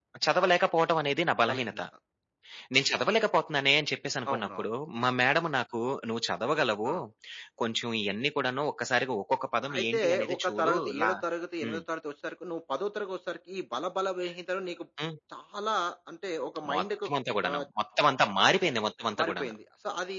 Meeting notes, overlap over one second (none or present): present